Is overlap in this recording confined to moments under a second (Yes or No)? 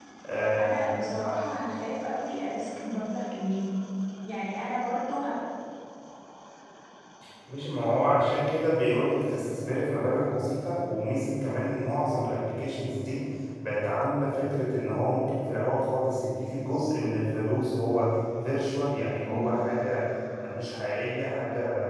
Yes